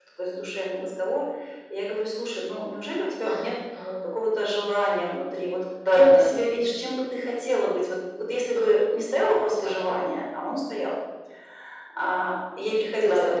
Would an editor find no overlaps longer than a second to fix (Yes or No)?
Yes